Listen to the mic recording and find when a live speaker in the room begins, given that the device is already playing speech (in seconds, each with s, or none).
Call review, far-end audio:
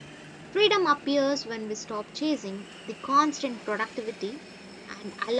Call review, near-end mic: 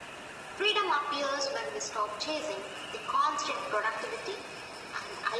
none